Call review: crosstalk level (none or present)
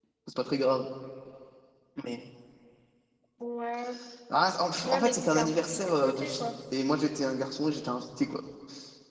present